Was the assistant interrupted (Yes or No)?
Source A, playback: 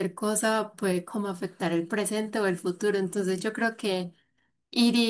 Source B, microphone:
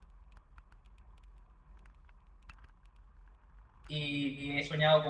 Yes